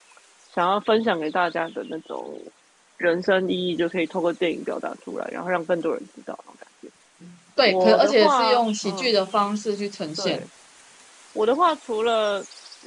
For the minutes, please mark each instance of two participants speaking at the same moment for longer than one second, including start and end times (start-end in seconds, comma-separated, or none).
7.7-9.1